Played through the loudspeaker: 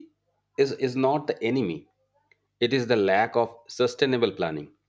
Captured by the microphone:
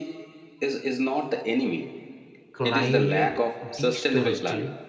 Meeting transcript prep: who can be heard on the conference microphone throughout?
both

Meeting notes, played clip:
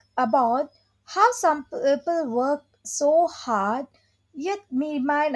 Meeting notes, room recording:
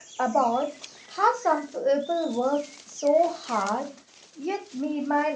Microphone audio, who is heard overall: echo only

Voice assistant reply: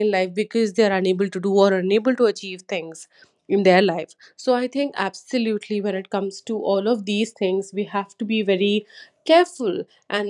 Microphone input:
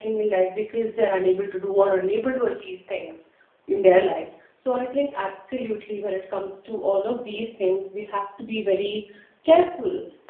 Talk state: echo only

